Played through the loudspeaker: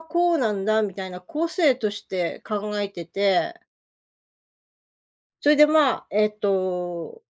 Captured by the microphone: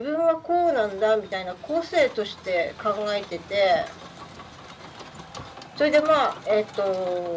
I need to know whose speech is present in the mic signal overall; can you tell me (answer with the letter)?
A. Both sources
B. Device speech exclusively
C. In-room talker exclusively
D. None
B